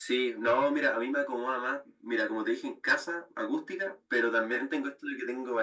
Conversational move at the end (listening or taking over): listening